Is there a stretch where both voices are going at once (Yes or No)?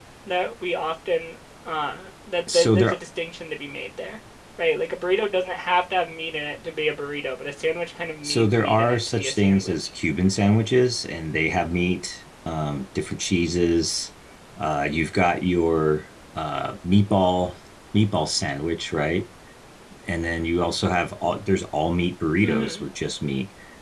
Yes